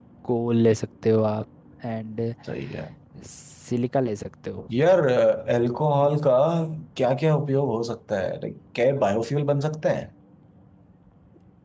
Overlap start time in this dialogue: none

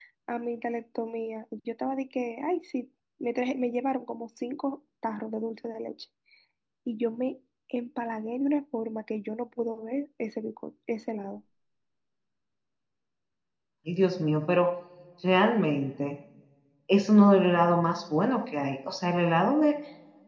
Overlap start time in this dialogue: none

